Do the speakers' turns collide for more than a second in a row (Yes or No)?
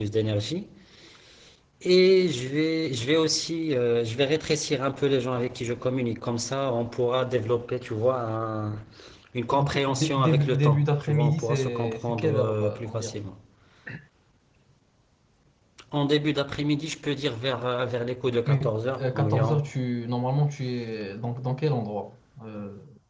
Yes